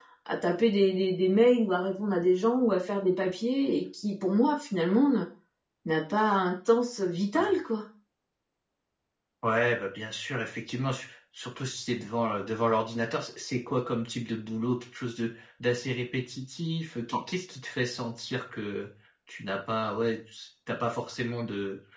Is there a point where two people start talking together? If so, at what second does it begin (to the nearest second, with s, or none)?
none